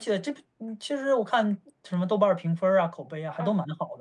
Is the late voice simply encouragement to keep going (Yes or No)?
No